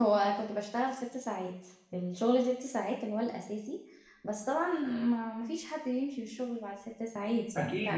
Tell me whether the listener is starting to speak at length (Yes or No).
Yes